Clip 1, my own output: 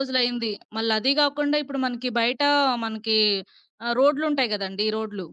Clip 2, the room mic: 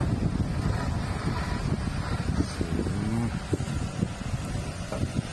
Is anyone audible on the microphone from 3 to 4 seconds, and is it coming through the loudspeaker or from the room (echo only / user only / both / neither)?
neither